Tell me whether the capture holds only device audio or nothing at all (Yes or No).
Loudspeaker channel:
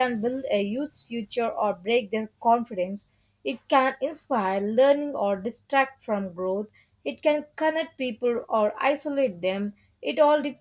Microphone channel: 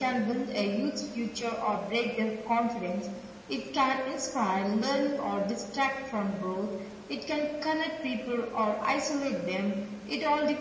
Yes